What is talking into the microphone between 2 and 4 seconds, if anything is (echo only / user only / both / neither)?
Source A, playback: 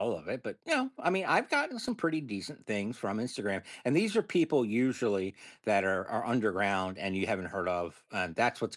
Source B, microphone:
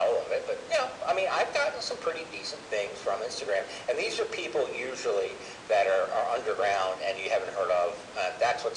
echo only